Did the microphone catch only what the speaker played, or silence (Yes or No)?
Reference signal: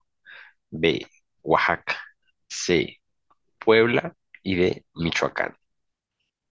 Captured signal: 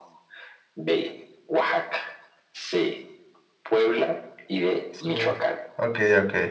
No